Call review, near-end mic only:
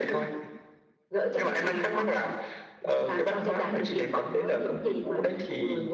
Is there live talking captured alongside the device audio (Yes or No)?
No